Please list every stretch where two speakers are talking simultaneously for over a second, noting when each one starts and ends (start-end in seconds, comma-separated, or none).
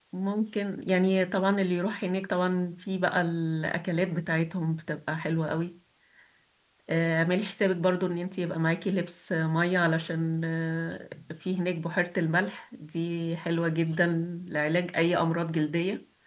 none